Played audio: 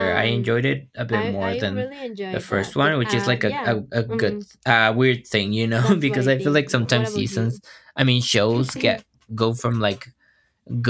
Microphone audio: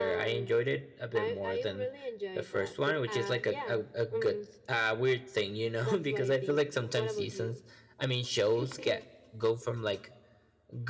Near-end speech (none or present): none